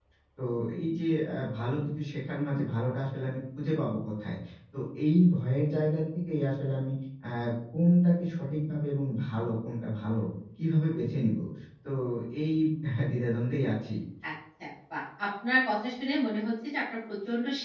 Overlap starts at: none

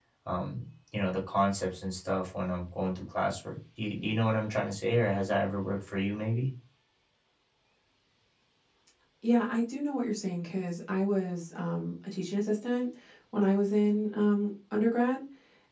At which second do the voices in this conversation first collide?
none

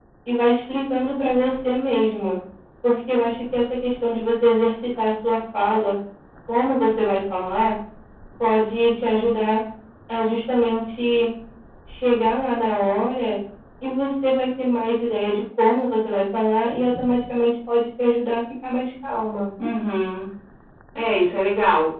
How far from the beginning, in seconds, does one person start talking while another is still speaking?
none

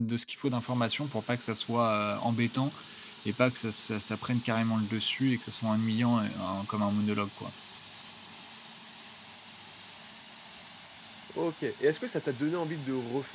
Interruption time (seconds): none

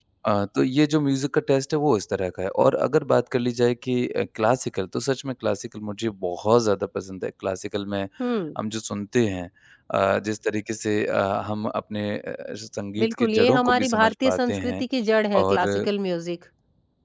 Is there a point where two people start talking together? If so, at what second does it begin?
13.0 s

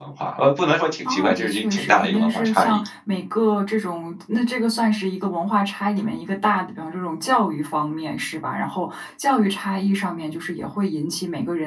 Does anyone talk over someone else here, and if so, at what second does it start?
1.0 s

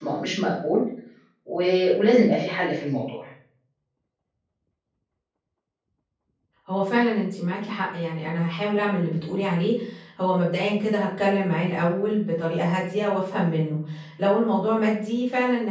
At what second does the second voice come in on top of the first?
none

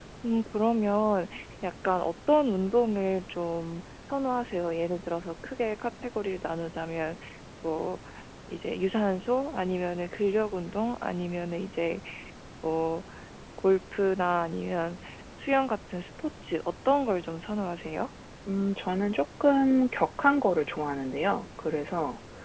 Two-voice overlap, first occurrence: none

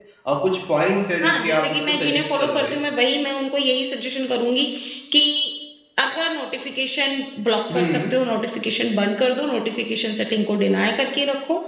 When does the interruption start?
1.2 s

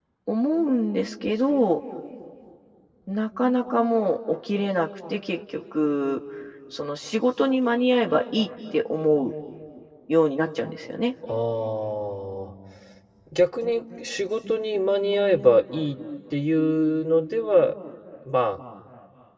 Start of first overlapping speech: none

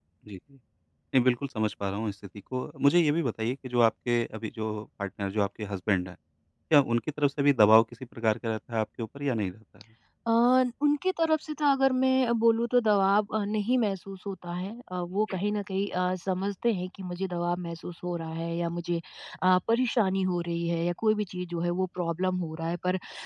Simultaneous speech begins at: none

